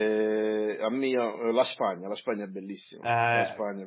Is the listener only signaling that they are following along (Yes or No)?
No